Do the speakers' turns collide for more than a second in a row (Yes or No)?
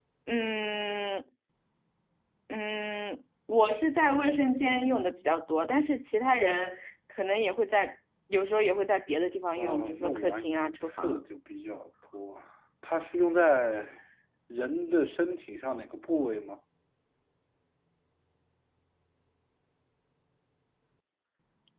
Yes